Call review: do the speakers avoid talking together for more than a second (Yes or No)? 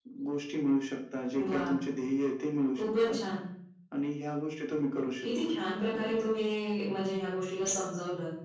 Yes